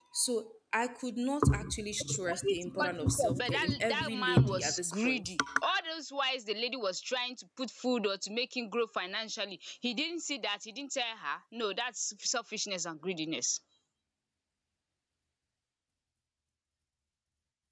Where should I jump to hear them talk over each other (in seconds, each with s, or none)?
2.1 s